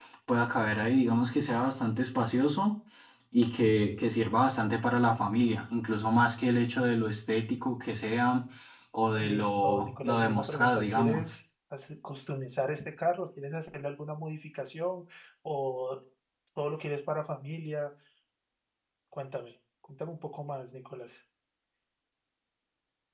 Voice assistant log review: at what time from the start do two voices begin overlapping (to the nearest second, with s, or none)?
9 s